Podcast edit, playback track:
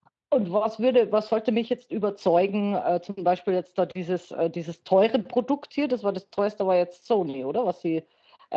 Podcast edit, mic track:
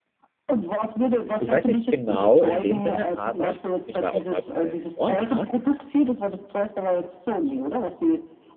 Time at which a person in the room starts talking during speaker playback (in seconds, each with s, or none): 1.4 s